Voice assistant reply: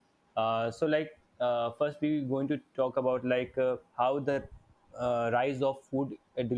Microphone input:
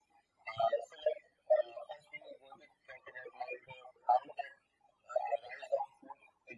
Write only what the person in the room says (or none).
none